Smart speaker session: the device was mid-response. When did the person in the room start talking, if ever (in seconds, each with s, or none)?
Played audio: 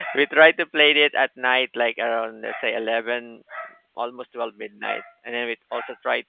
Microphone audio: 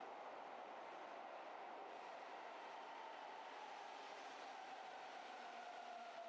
none